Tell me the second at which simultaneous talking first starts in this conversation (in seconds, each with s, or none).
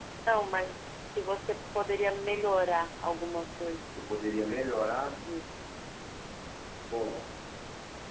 none